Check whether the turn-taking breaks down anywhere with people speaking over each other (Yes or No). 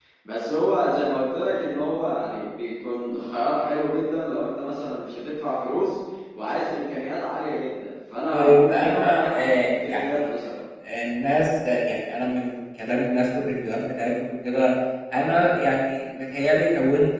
Yes